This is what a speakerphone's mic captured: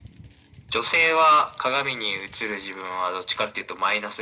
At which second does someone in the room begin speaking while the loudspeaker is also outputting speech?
none

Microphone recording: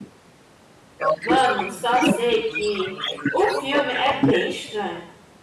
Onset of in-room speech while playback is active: 1.2 s

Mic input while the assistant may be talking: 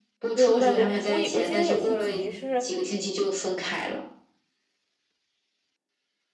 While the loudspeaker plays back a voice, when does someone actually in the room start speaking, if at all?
0.3 s

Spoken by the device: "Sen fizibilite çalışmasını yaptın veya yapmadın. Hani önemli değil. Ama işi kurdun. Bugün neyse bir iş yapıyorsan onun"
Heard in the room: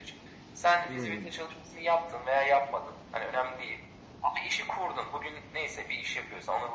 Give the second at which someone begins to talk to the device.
0.9 s

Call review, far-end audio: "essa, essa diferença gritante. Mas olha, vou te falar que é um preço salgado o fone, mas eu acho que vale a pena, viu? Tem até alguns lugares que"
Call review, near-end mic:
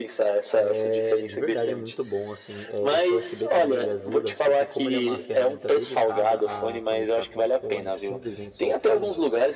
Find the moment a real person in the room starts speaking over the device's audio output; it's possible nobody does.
0.5 s

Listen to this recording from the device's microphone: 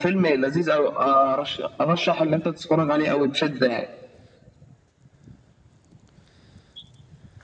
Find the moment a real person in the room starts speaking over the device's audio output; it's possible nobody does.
none

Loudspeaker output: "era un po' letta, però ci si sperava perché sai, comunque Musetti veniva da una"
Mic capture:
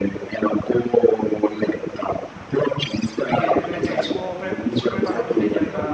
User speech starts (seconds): 2.3 s

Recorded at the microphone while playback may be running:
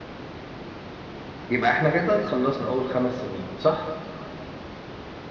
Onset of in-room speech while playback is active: 1.5 s

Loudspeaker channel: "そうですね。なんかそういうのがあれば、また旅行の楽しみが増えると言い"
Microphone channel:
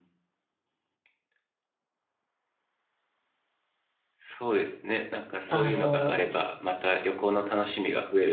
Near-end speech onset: 5.5 s

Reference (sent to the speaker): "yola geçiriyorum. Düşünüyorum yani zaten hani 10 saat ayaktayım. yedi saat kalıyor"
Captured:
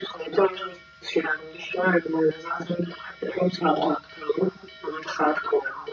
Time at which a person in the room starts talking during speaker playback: none

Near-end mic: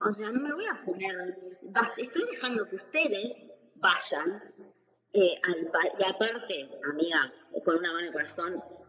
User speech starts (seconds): none

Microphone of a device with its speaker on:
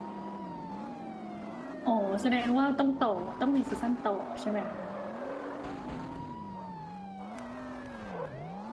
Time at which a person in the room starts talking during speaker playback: 1.8 s

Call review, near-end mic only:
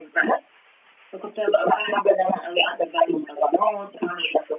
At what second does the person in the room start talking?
none

